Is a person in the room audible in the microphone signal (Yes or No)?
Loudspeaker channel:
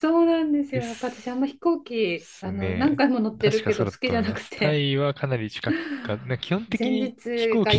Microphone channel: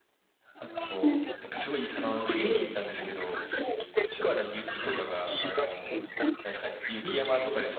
Yes